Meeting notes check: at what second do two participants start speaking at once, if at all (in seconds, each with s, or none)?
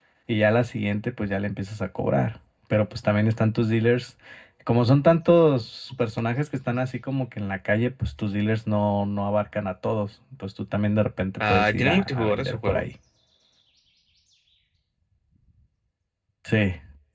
11.4 s